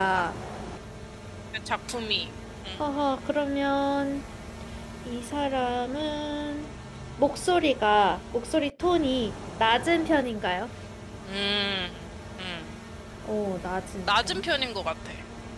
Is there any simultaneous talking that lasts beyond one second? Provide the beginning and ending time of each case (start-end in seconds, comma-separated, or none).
none